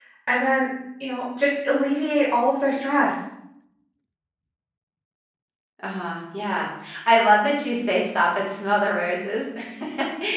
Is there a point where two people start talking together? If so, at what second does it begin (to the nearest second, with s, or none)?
none